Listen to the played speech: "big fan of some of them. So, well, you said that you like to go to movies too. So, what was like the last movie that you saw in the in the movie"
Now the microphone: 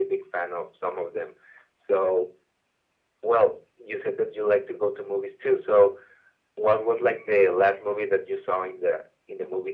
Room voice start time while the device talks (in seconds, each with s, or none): none